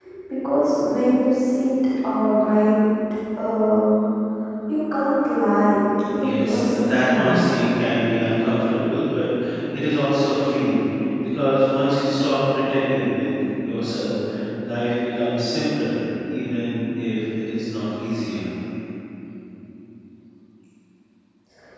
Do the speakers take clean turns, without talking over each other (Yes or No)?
No